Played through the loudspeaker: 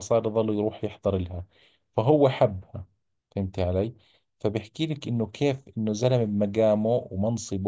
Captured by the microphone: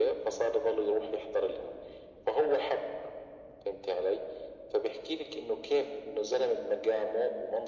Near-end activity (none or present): none